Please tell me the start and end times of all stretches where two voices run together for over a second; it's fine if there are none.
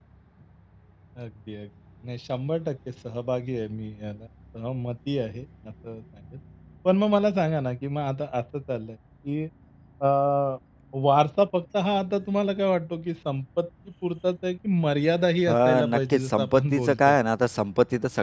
15.5-17.2

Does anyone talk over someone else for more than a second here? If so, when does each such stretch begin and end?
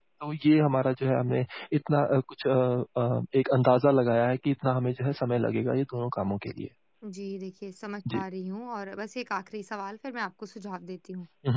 none

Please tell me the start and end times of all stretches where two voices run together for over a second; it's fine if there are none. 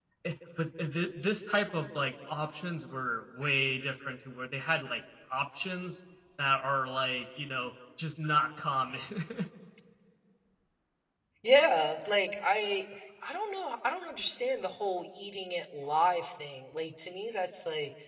none

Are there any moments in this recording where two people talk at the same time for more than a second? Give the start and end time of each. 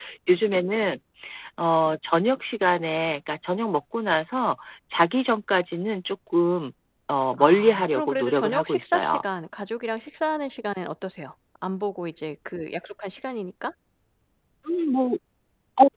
7.3-9.2

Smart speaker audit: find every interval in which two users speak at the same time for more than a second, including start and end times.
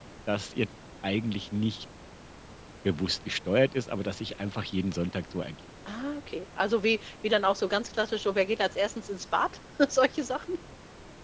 none

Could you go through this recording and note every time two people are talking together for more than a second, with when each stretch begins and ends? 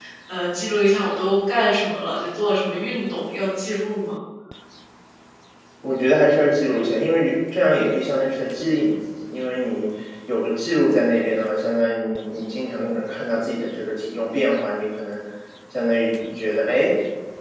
none

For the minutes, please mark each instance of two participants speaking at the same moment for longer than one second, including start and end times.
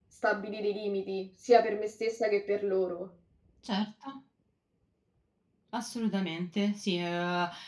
none

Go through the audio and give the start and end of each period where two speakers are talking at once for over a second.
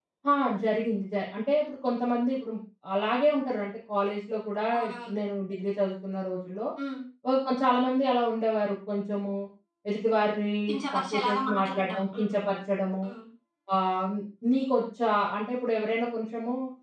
10.9-12.4

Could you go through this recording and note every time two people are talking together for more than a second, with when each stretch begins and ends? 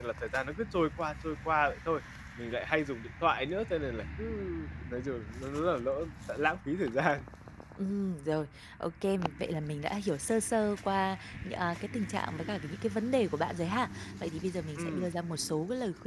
none

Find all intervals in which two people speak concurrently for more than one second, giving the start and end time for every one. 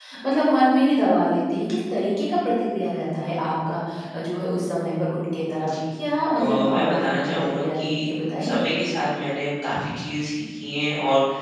6.3-8.1

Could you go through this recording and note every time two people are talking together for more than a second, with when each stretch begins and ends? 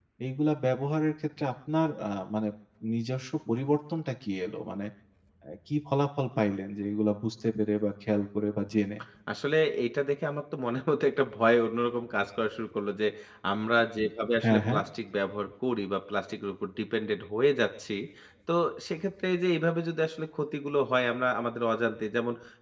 none

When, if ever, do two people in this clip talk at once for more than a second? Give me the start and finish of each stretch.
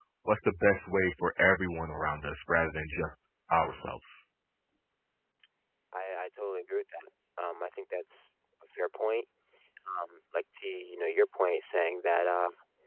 none

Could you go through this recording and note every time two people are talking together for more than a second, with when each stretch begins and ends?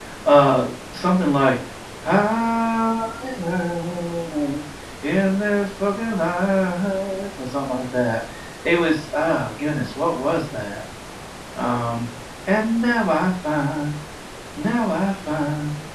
none

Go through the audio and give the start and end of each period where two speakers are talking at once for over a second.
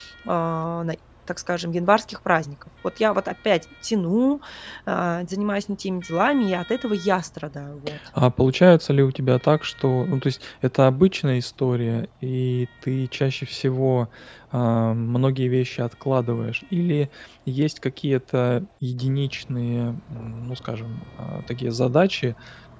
none

